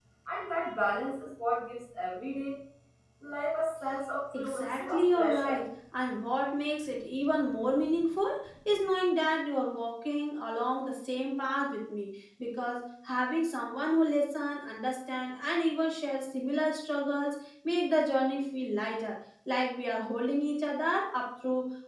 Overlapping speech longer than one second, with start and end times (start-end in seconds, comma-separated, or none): 4.3-5.6